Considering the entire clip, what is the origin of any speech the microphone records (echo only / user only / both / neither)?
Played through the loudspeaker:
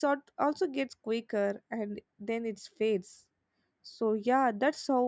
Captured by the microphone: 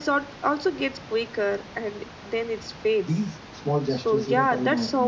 both